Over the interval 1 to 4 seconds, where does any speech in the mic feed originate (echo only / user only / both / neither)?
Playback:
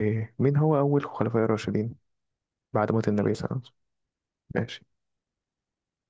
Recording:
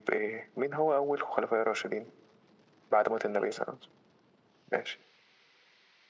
echo only